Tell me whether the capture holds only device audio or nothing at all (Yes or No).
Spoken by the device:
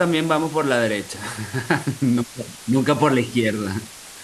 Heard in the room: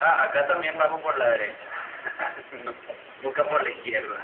Yes